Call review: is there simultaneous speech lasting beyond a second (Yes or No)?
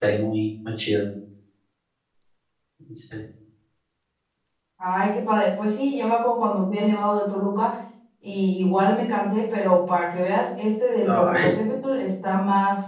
No